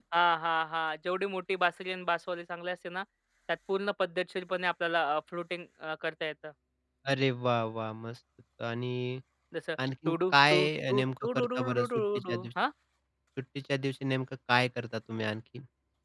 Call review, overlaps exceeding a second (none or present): present